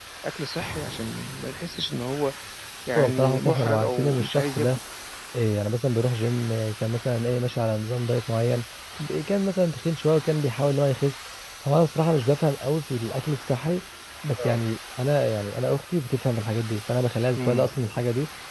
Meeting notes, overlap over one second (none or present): present